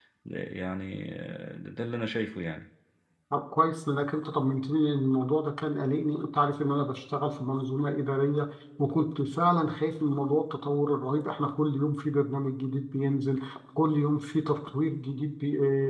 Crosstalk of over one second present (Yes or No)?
No